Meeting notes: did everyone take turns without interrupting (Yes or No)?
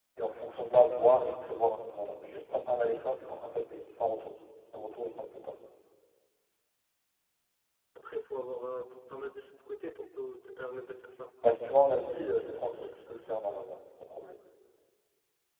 Yes